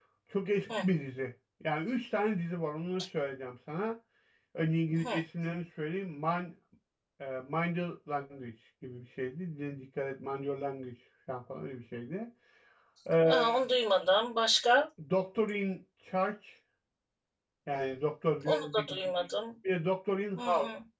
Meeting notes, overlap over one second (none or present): none